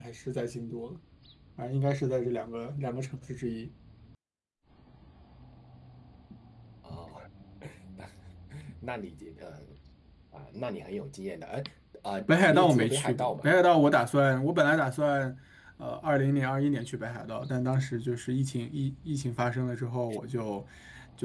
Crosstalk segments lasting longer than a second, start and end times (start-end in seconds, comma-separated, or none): 12.3-13.5